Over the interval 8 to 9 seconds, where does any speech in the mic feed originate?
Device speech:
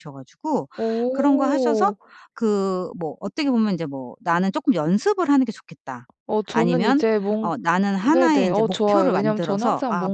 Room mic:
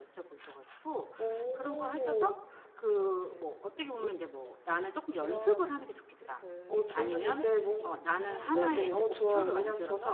both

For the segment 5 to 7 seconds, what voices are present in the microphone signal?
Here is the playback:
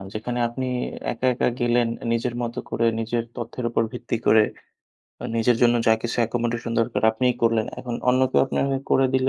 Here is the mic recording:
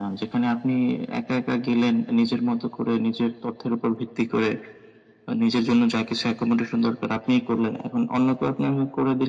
echo only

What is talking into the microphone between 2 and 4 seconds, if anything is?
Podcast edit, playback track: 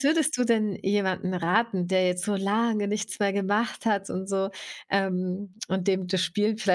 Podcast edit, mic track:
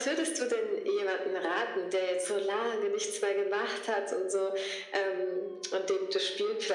echo only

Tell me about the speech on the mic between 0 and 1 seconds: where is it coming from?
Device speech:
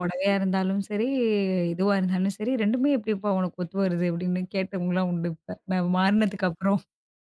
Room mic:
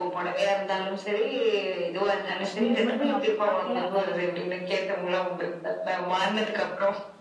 echo only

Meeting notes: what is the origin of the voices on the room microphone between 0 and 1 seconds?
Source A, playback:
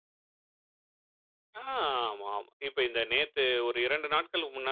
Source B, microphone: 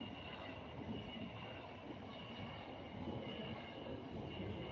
neither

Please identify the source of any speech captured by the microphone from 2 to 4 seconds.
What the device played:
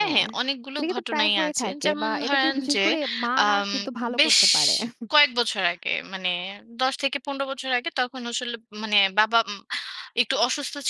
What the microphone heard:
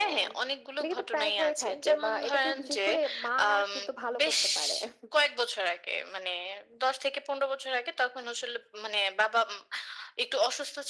echo only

